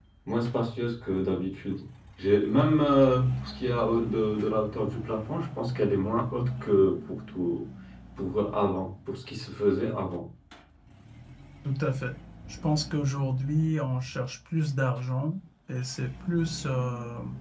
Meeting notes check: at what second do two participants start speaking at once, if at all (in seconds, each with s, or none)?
none